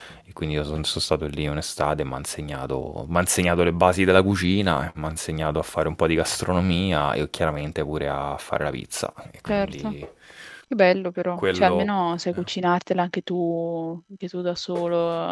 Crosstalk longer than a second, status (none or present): none